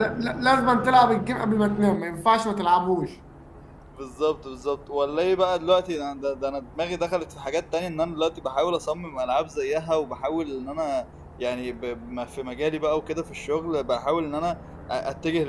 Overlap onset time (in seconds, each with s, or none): none